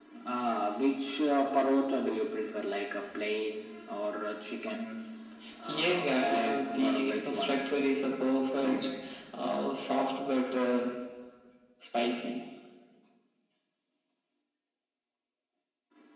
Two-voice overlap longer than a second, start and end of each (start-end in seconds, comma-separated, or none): 5.7-7.6